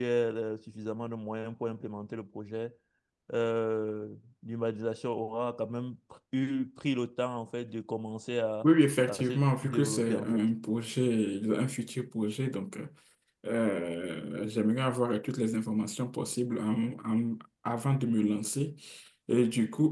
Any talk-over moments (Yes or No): Yes